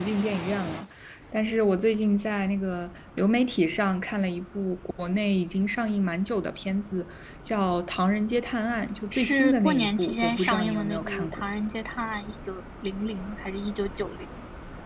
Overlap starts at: 9.1 s

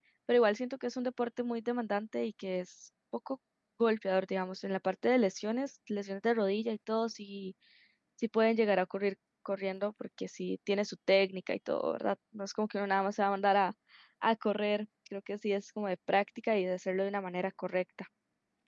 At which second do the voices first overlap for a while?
none

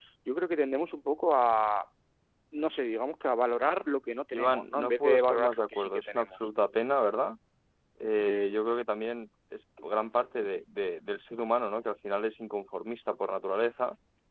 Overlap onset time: 4.3 s

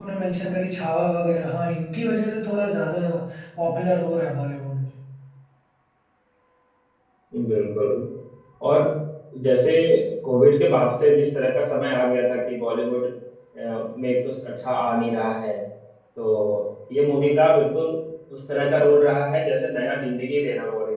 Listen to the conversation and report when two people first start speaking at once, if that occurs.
none

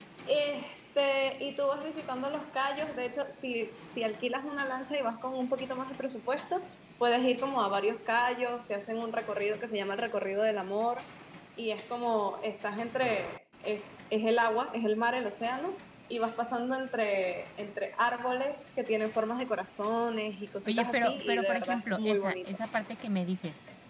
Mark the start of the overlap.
20.6 s

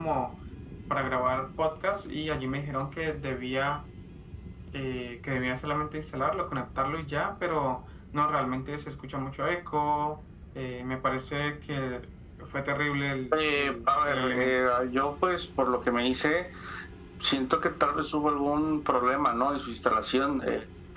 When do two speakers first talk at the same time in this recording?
13.3 s

